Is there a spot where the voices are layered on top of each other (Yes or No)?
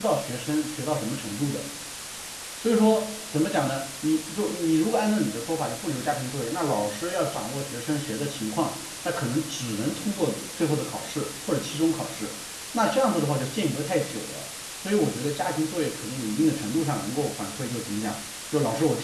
No